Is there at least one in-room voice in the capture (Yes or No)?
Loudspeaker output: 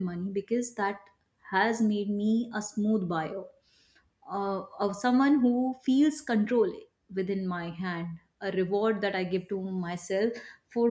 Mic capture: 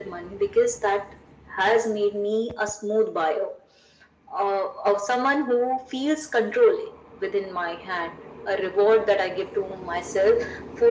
No